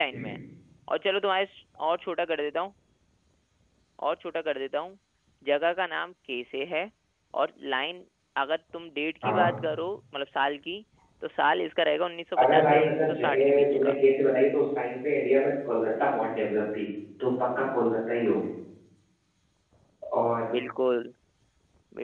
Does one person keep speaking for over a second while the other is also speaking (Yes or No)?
Yes